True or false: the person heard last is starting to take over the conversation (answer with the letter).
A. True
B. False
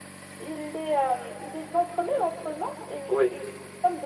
B